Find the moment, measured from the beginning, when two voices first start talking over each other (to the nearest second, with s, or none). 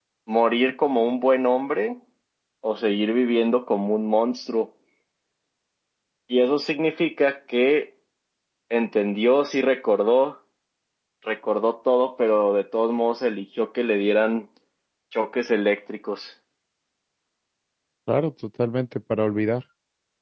none